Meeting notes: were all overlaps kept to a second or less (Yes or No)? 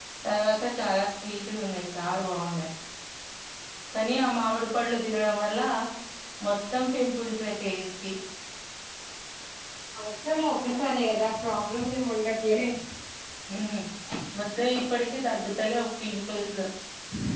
Yes